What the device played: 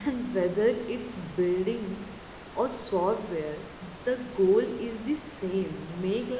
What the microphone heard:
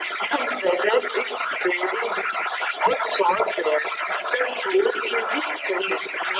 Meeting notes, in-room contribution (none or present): none